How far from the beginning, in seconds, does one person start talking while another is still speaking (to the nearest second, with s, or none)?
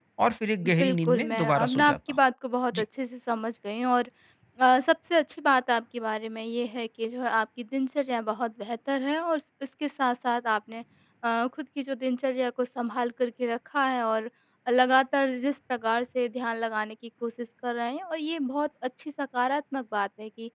1 s